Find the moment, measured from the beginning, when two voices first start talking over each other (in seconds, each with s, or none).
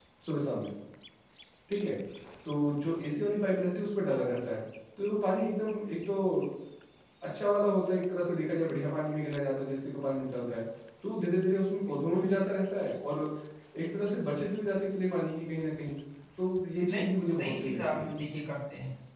16.9 s